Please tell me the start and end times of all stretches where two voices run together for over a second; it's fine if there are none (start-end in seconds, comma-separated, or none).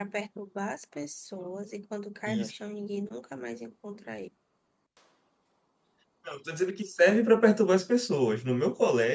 none